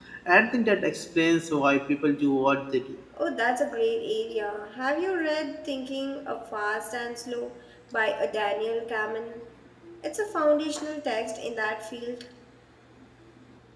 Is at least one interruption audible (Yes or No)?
No